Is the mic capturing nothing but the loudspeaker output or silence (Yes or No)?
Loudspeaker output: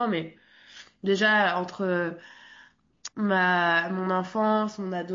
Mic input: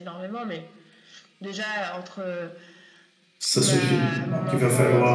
No